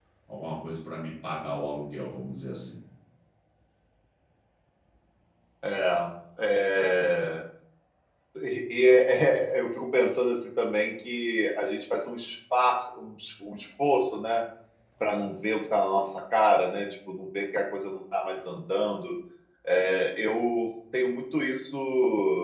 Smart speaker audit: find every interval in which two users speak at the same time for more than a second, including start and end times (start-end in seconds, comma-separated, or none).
none